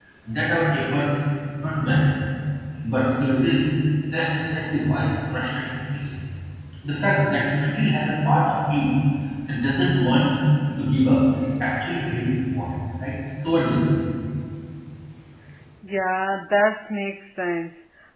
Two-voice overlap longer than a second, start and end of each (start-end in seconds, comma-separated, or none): none